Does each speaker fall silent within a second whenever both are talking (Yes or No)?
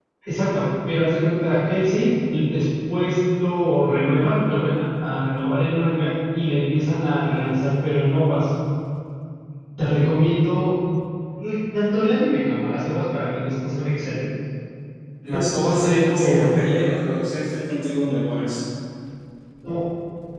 No